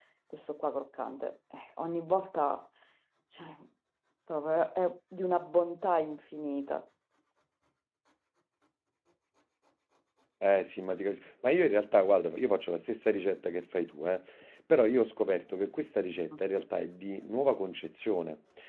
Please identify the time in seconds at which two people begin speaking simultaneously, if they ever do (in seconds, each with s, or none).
none